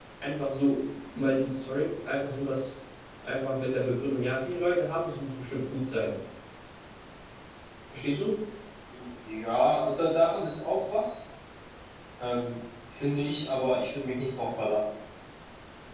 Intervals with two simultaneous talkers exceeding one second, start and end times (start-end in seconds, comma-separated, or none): none